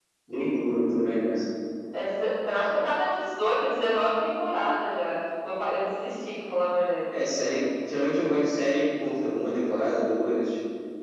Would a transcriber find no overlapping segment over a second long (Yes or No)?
Yes